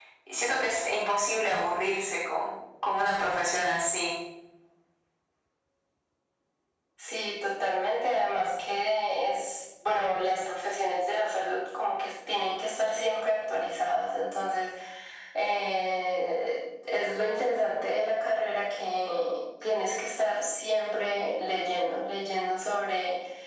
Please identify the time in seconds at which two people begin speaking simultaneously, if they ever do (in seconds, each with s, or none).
none